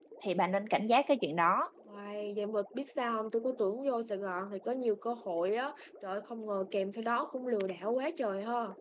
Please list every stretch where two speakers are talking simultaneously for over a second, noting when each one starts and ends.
none

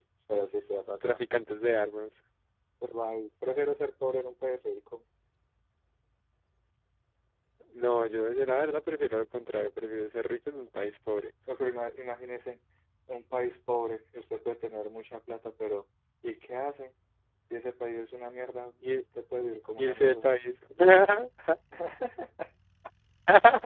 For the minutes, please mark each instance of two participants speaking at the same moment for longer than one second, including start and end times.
none

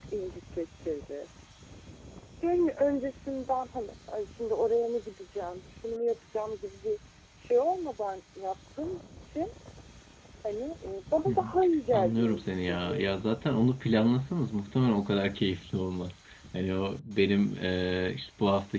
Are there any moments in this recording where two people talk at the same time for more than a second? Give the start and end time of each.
11.9-13.2

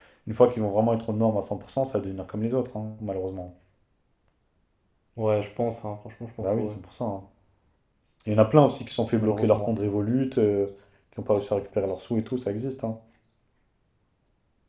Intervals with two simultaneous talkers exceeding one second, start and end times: none

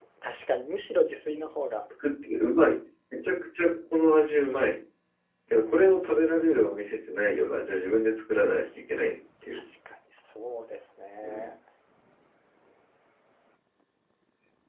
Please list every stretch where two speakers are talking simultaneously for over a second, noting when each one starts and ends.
none

